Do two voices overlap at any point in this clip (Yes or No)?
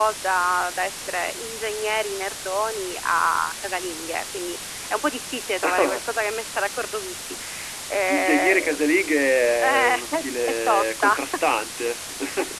Yes